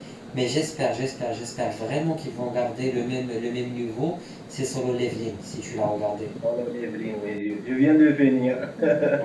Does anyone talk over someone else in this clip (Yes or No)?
No